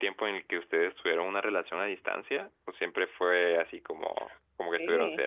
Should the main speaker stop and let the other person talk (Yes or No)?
Yes